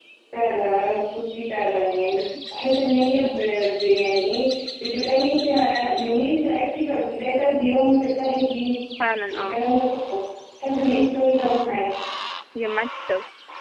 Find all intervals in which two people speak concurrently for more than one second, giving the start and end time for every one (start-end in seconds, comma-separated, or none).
none